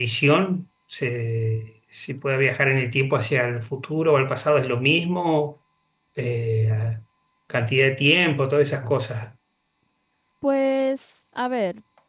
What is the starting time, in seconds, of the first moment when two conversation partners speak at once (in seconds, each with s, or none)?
none